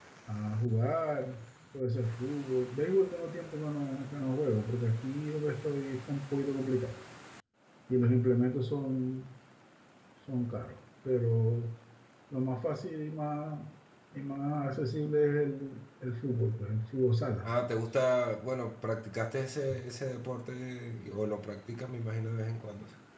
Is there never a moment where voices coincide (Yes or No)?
Yes